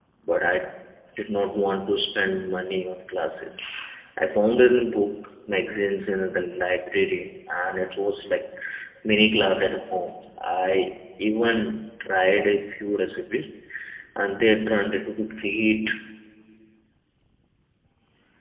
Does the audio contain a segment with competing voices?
No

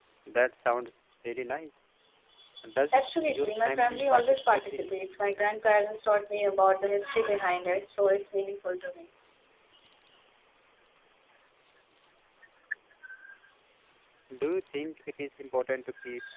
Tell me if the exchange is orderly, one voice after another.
No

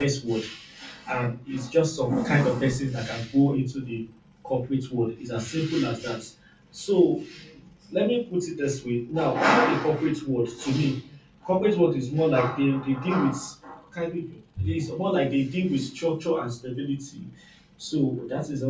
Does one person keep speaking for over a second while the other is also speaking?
No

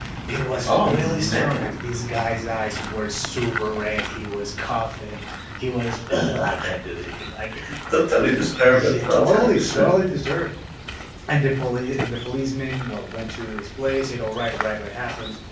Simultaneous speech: Yes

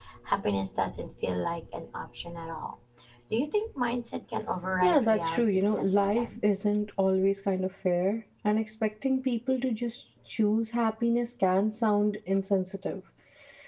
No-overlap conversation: No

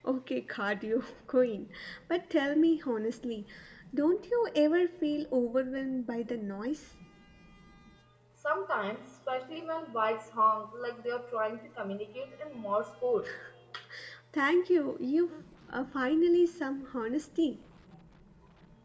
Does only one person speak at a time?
Yes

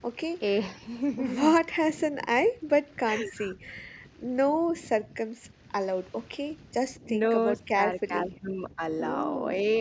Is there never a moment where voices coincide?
No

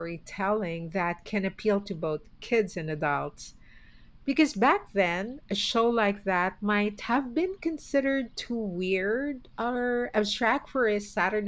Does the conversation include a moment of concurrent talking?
No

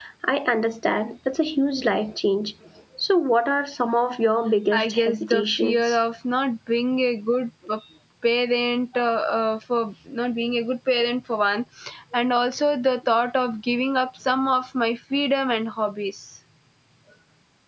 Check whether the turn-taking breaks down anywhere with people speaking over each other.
Yes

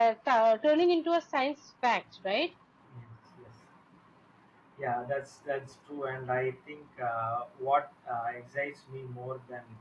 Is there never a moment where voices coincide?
Yes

